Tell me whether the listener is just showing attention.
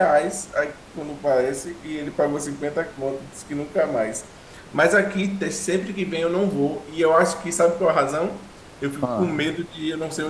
Yes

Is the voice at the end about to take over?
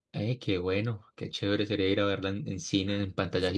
Yes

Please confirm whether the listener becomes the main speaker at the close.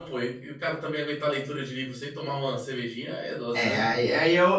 Yes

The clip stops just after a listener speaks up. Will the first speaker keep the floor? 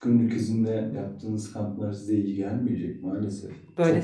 No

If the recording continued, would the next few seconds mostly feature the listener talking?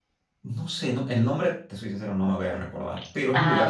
No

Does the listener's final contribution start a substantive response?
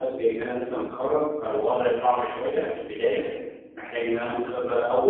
No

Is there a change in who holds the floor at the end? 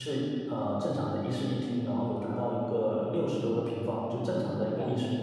Yes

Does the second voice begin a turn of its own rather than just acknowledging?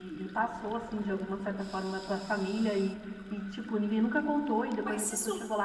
No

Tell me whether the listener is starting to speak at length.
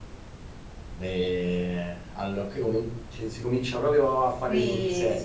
Yes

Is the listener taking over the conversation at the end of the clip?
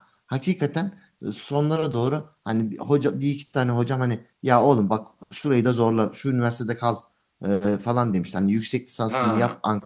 No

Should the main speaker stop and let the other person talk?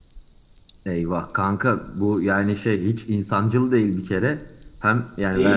No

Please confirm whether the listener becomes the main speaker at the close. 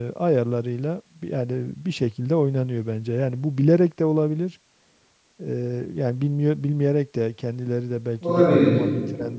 No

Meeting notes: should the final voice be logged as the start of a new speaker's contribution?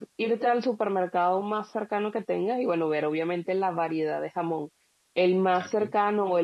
No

